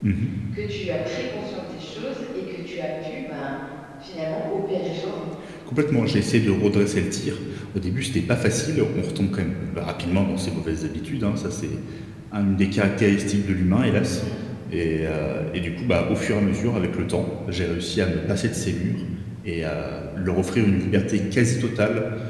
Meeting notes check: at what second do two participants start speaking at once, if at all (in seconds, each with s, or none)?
none